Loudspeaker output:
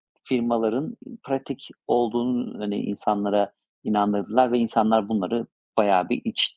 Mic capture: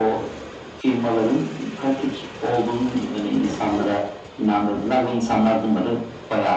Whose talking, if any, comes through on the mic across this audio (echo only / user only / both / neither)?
echo only